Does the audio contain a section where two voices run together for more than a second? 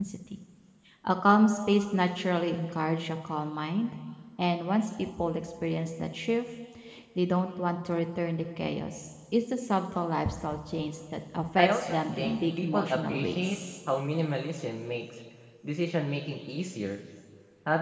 Yes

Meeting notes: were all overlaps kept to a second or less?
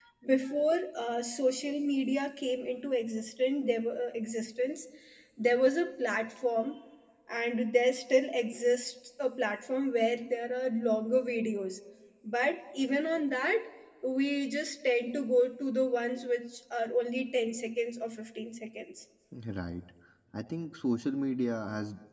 Yes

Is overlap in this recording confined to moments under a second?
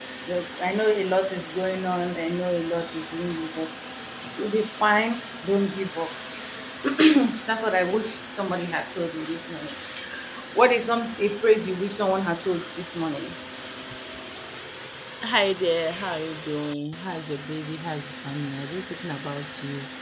Yes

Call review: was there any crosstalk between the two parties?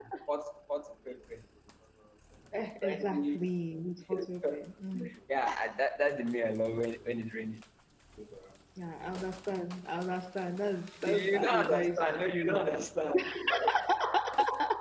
Yes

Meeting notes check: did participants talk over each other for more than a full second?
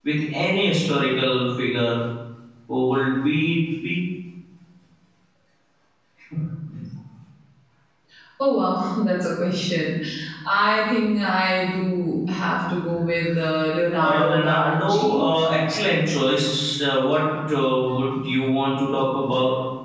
Yes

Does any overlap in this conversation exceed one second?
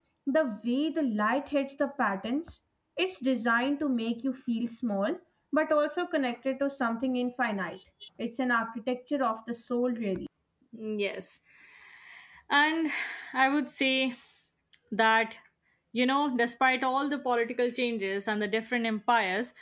No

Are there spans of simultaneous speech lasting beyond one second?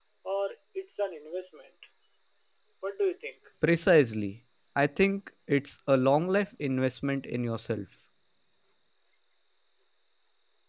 No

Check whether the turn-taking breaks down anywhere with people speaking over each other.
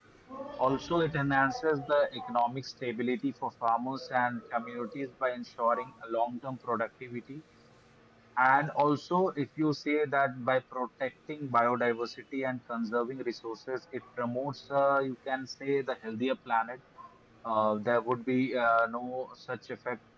Yes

